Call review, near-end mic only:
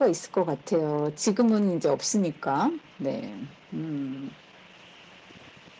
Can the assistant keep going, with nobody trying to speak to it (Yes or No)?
Yes